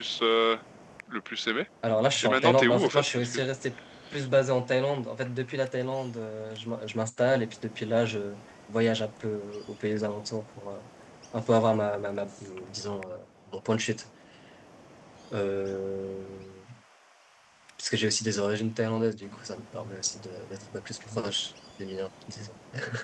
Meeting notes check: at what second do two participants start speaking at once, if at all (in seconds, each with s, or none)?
2.2 s